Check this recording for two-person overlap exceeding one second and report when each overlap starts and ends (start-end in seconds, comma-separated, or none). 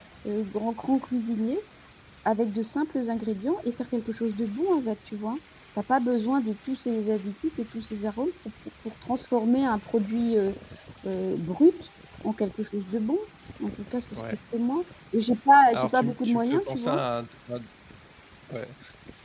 15.7-17.0